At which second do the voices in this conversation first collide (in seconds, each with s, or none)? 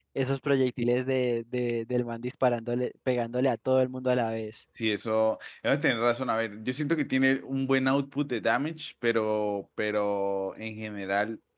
none